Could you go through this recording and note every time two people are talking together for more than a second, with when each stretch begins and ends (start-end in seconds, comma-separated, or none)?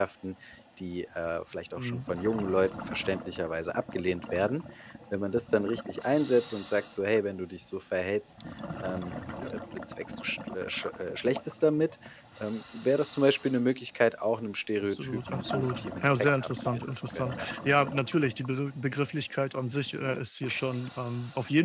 14.8-17.5